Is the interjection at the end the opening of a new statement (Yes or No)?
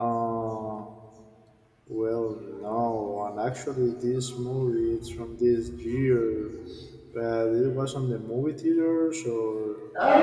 Yes